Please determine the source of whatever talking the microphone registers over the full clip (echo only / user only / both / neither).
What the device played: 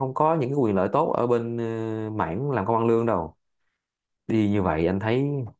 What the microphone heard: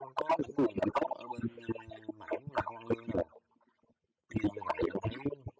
echo only